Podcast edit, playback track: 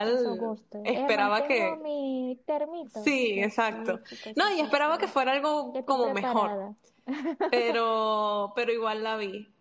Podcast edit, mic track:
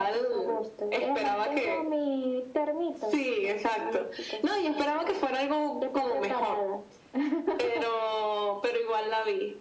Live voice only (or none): none